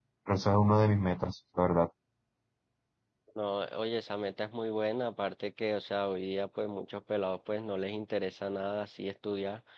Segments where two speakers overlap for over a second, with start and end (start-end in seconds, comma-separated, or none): none